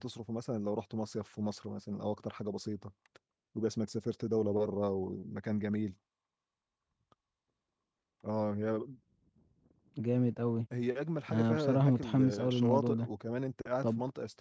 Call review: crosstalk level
present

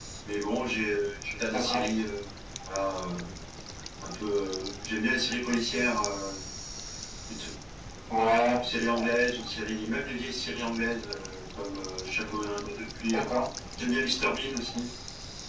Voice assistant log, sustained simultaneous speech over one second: none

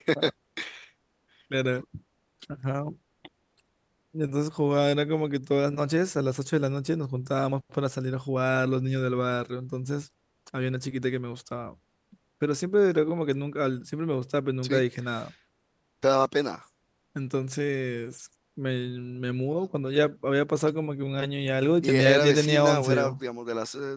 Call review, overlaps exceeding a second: present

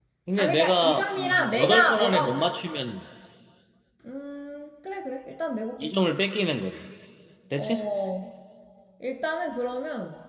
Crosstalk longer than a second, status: present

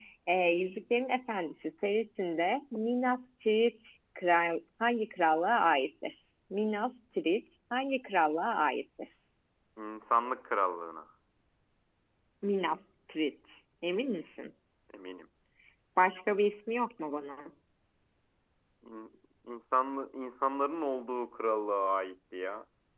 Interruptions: none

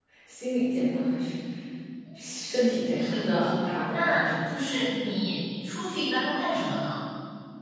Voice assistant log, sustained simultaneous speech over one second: present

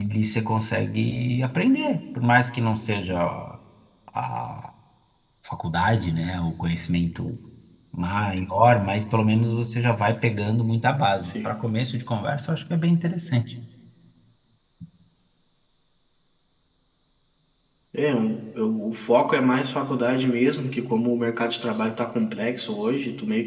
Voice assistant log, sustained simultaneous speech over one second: none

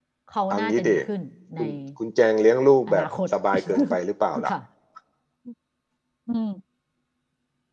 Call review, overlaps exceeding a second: none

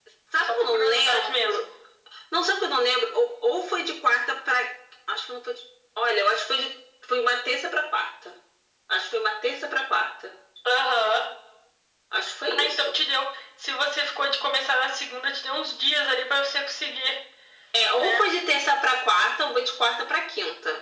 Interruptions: present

